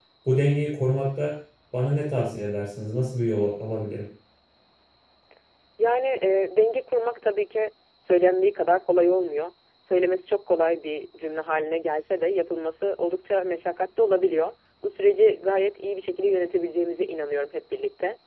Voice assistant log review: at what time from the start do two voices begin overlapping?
none

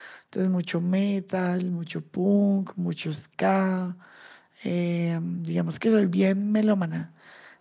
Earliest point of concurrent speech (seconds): none

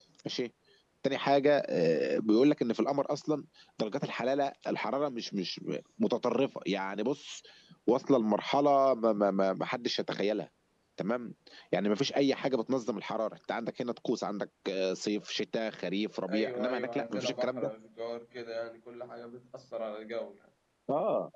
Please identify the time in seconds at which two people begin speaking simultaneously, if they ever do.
16 s

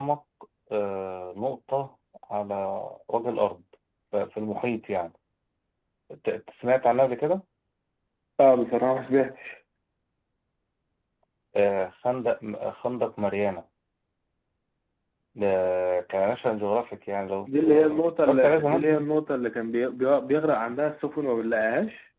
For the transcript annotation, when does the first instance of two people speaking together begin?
17 s

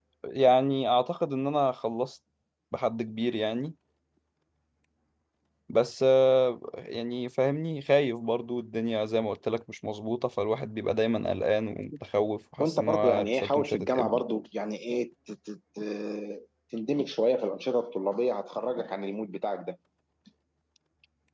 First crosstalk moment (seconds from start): 13 s

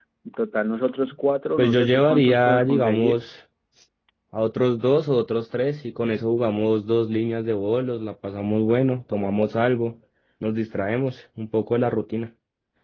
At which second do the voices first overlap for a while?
2 s

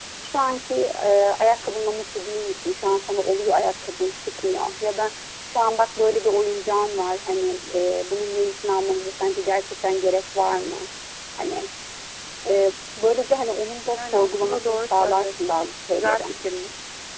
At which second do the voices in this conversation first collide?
14 s

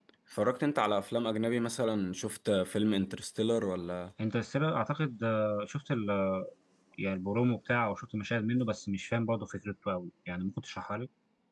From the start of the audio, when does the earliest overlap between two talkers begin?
none

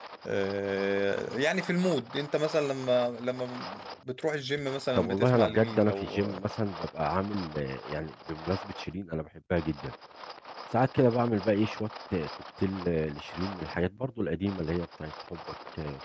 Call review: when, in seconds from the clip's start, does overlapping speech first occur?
5 s

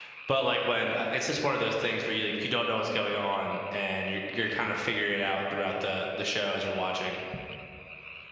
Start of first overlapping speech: none

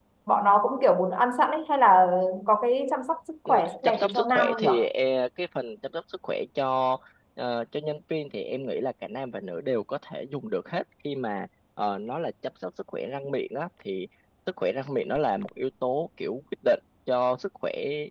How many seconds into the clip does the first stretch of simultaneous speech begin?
3 s

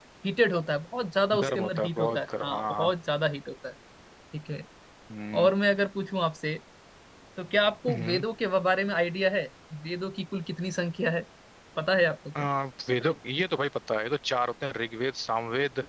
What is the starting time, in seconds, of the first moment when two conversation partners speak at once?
1 s

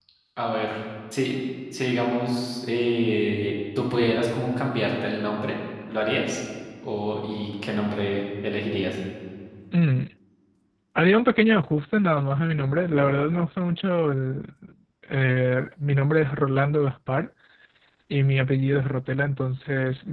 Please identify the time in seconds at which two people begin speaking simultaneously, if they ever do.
none

